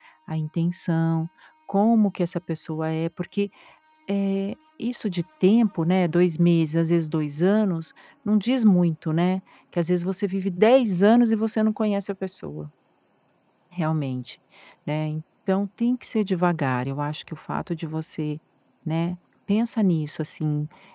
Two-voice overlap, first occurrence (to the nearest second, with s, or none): none